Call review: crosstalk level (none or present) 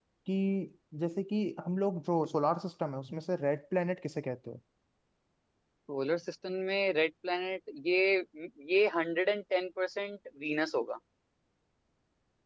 none